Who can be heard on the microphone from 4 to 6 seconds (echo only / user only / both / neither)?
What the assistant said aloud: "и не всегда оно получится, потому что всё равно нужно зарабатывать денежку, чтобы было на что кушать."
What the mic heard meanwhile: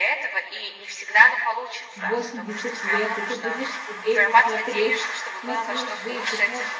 both